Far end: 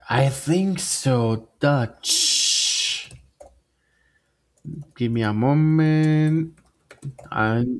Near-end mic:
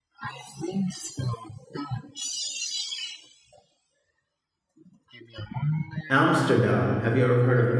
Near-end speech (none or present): present